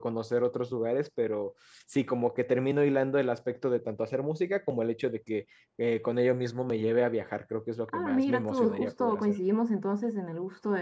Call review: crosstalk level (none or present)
present